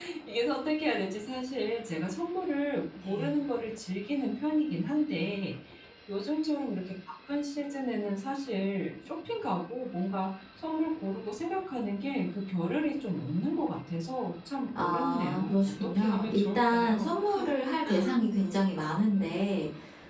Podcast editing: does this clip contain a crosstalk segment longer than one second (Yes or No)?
Yes